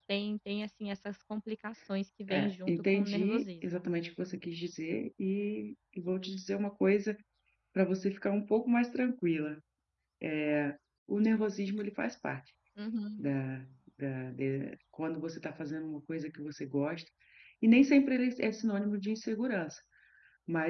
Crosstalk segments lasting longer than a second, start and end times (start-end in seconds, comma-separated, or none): 2.3-3.9